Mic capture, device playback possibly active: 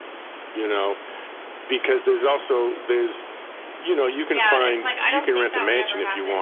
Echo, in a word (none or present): present